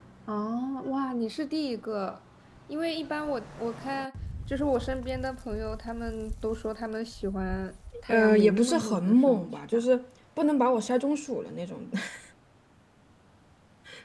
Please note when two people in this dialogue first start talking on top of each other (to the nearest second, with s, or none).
8 s